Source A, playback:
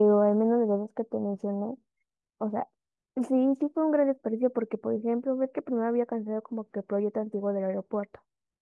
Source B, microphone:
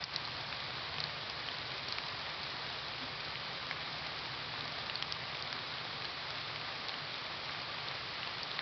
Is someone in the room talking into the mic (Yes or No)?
No